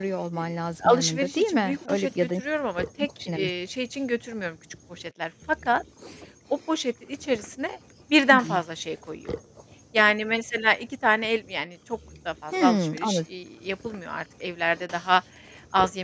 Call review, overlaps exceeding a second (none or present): present